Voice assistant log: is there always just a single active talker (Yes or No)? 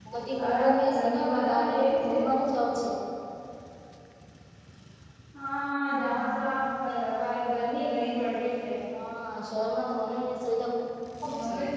No